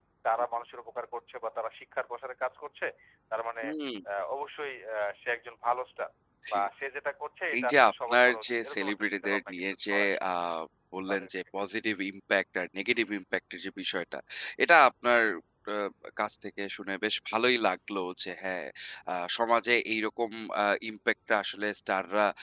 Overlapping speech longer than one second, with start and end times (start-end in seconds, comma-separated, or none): 7.6-10.3